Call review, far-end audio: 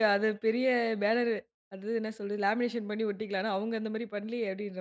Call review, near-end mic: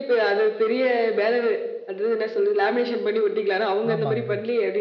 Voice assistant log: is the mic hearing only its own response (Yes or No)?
No